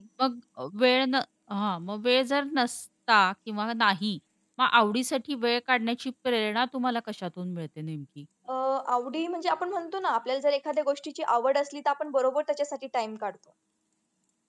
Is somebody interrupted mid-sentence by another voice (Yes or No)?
No